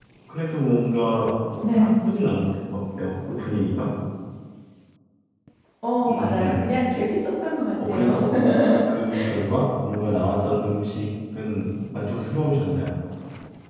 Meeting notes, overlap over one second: none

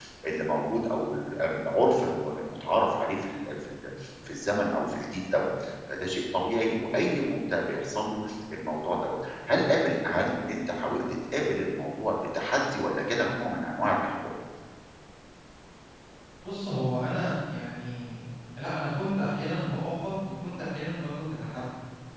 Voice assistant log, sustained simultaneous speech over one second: none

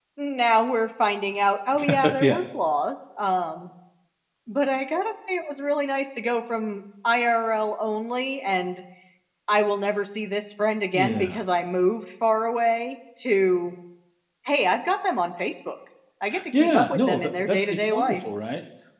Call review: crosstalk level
present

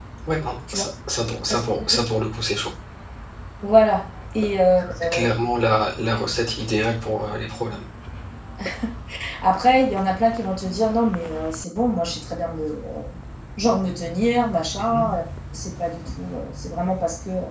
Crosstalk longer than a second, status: none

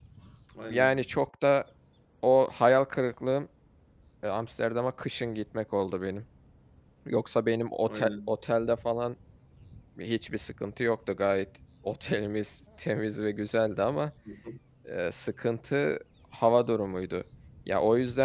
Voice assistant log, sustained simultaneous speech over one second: none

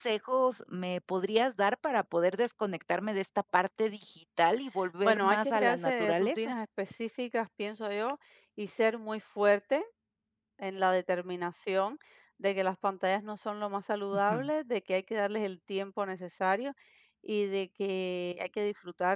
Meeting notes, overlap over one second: present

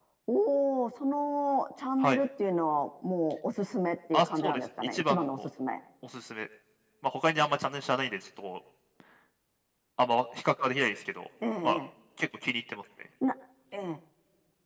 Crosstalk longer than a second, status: present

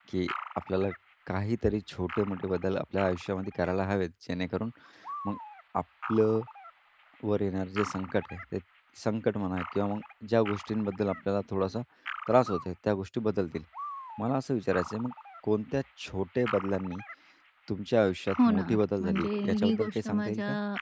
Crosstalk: present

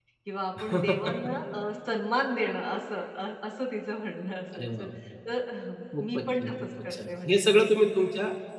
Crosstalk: present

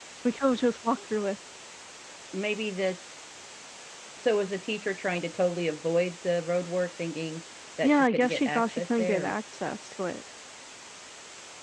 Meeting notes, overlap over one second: present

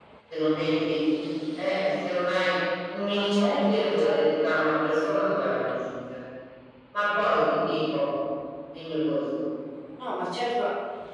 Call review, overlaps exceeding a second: present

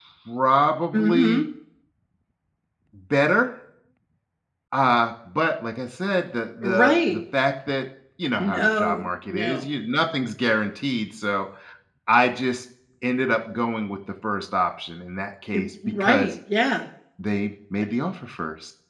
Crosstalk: present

